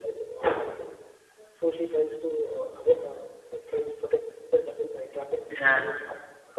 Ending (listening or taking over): listening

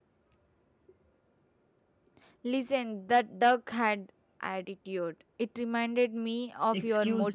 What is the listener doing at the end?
taking over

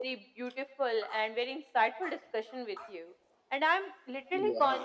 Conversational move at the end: listening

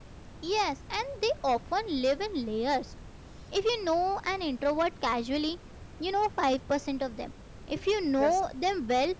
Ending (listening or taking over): listening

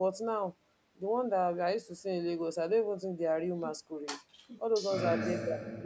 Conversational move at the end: listening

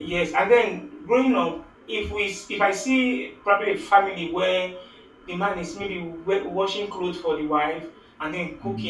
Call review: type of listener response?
listening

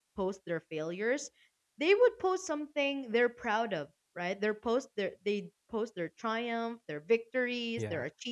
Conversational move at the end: listening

